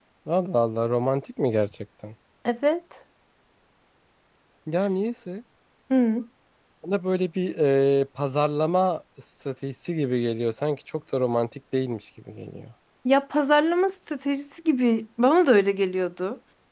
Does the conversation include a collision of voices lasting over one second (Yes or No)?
No